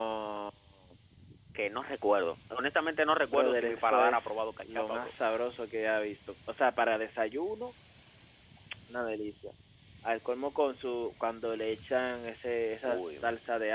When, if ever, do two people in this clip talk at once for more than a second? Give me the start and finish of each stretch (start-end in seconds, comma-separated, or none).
3.3-5.1